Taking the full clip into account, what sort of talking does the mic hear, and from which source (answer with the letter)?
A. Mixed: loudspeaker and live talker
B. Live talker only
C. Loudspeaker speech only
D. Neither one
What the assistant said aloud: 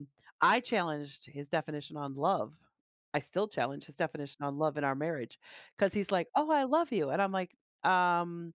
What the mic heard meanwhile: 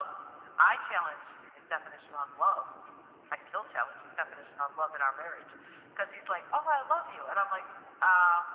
C